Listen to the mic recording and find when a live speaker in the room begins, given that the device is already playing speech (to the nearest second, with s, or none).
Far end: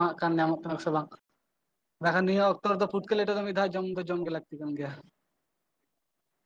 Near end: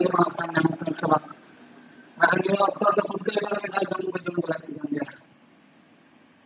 none